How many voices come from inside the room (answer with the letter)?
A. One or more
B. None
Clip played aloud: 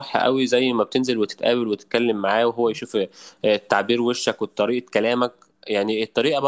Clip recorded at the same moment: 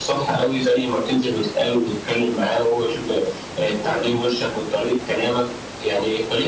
B